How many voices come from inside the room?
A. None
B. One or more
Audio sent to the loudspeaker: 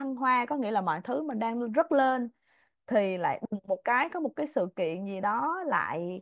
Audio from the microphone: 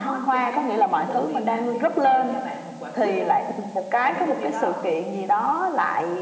B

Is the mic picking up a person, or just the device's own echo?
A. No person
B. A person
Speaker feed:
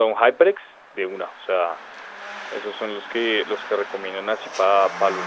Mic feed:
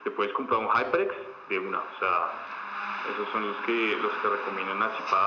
A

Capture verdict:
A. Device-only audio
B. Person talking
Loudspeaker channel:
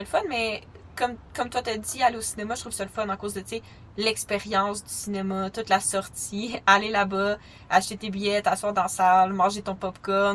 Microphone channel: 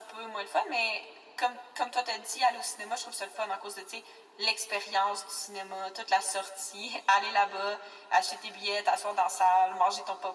A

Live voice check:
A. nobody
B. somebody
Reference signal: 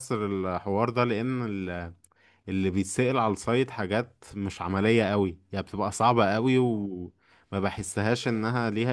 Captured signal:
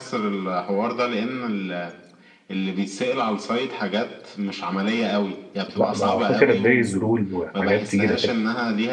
B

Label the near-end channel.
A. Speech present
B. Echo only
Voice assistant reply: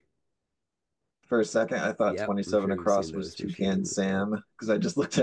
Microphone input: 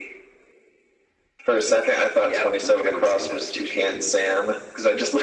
B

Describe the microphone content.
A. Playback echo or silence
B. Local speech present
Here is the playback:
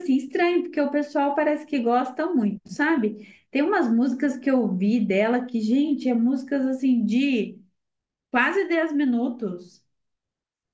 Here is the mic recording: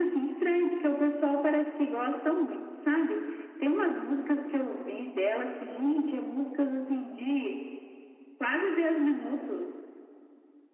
A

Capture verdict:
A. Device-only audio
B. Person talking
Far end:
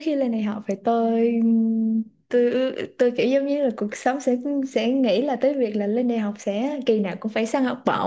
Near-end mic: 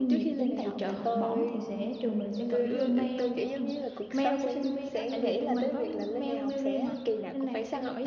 B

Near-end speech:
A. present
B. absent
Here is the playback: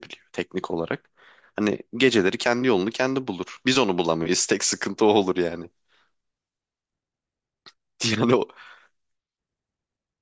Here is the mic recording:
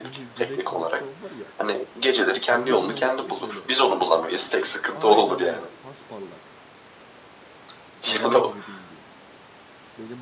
A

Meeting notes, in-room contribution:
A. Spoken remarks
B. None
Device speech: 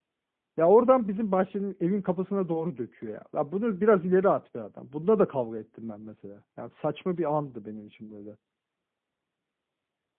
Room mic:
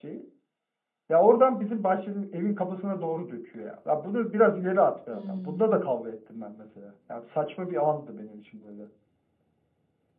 A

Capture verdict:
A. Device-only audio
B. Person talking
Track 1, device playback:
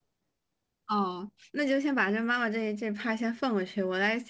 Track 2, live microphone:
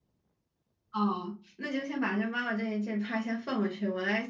A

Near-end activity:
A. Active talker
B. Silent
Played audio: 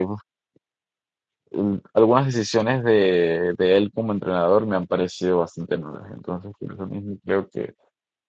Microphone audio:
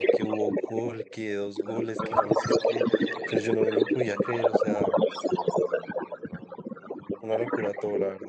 A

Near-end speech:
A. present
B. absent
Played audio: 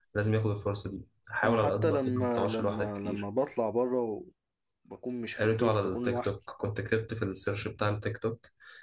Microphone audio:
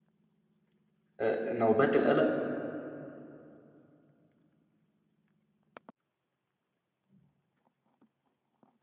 A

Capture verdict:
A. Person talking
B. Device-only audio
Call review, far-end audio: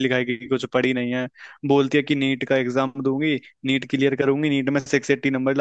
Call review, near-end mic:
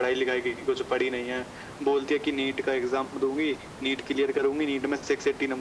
B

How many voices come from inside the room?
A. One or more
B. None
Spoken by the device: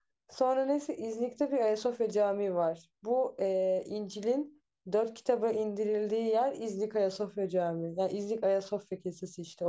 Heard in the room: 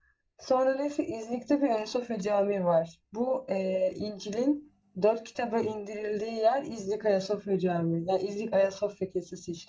B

